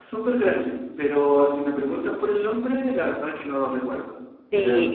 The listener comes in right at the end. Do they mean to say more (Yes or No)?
Yes